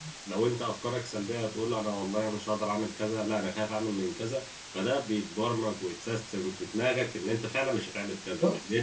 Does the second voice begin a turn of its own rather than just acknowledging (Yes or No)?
No